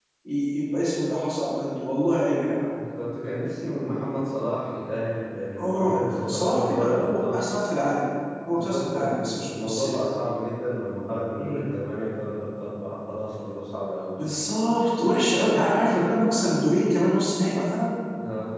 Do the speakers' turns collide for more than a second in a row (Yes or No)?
Yes